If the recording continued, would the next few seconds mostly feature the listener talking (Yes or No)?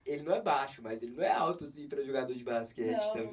Yes